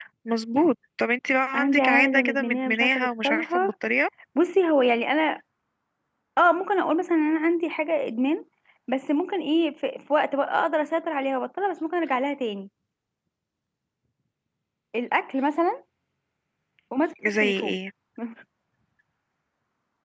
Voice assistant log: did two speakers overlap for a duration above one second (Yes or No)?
Yes